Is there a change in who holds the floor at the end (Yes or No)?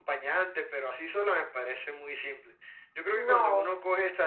No